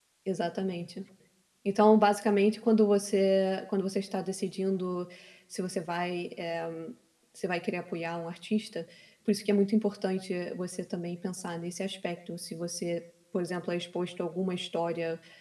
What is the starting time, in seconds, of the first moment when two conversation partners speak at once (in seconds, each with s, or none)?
none